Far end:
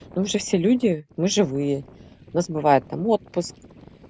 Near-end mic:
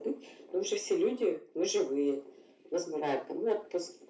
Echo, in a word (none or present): present